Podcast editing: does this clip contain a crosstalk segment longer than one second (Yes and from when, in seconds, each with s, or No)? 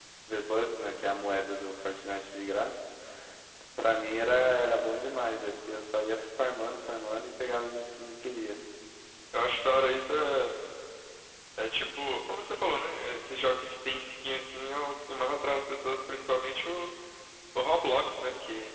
No